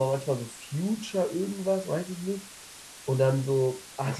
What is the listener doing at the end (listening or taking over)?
listening